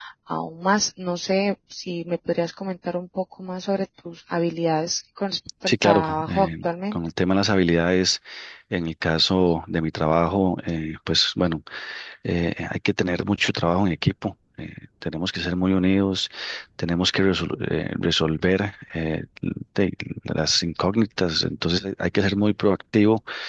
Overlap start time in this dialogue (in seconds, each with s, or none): 5.7 s